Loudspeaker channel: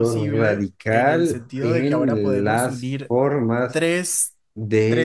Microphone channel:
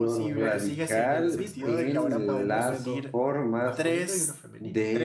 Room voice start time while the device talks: 0.4 s

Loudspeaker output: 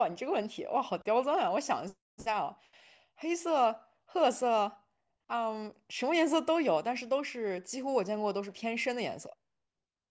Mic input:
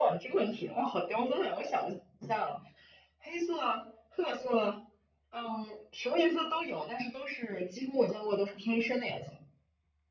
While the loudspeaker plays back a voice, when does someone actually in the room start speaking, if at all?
none

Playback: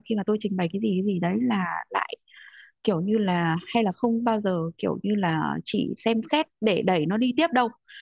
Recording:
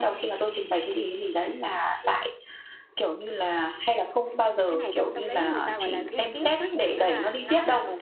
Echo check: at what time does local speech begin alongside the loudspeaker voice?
4.7 s

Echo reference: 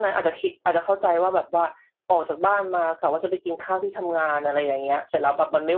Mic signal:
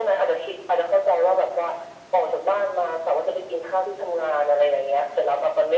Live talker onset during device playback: none

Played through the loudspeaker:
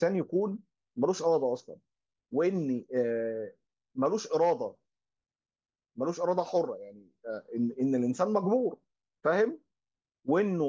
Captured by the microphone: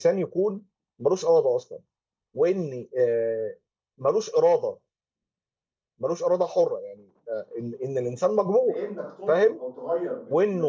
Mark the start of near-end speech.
8.6 s

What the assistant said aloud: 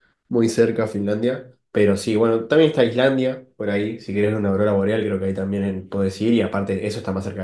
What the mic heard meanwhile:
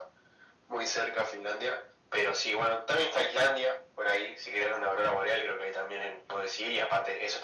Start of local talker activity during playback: none

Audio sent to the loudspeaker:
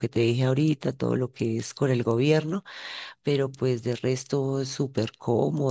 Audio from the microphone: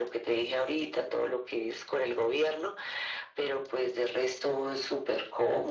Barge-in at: none

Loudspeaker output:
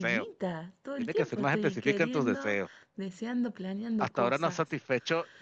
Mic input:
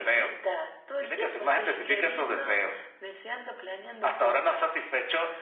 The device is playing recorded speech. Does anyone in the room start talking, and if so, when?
none

